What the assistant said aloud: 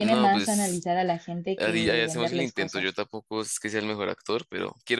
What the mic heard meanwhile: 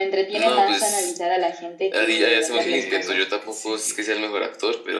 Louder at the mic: echo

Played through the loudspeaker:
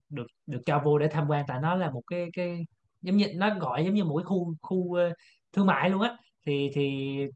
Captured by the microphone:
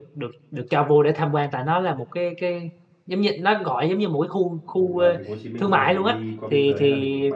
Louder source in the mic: echo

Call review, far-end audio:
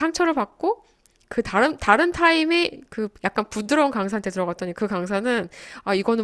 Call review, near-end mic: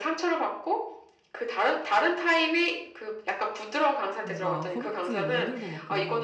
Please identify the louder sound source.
echo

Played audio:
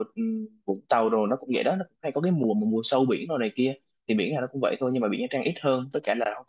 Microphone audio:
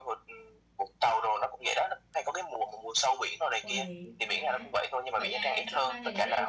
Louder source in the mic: echo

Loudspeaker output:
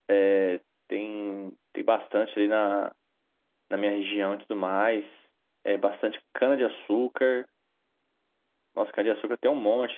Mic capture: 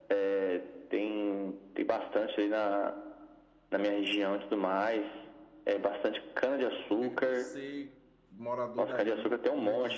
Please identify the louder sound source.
echo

